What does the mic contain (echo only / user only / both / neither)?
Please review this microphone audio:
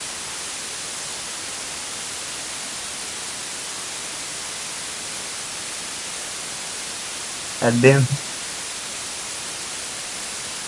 user only